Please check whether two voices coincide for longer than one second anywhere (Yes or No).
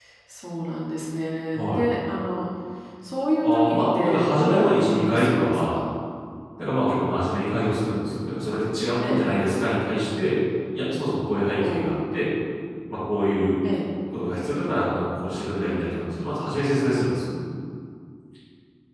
Yes